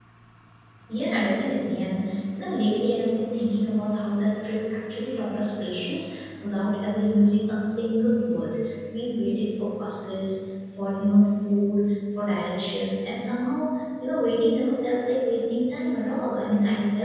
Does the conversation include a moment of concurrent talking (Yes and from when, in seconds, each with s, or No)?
No